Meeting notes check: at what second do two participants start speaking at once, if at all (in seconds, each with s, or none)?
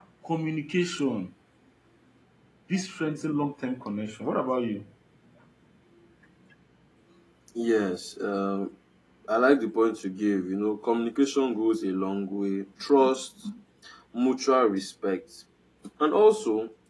none